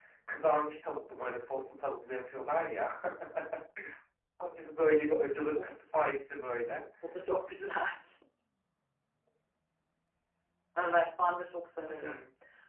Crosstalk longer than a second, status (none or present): none